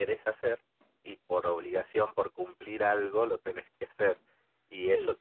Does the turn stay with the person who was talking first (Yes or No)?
Yes